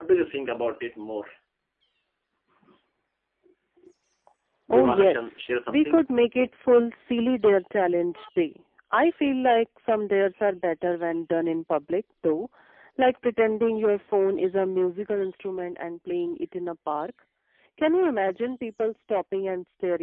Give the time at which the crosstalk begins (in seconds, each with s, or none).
4.7 s